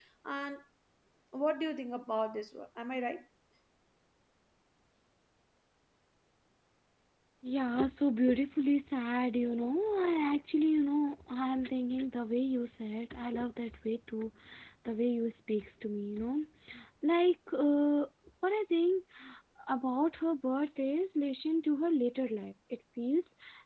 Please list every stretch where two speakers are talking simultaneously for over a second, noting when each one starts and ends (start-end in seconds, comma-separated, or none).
none